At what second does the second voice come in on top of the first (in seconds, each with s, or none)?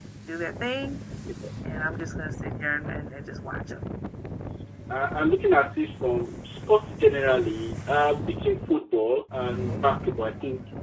none